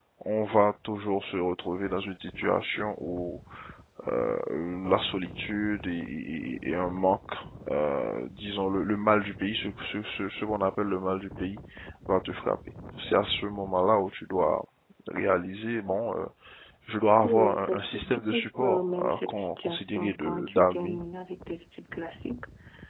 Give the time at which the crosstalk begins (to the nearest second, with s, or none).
17 s